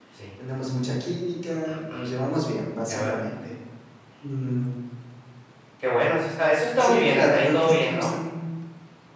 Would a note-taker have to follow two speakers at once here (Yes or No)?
Yes